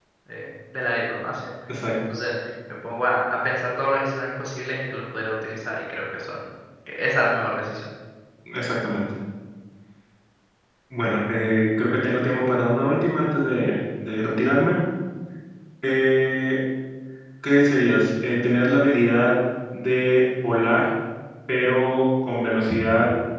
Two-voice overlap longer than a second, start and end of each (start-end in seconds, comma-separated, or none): none